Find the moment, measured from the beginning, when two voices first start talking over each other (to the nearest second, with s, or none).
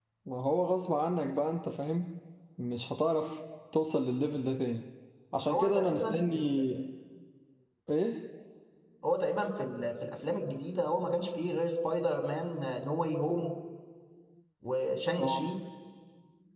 5 s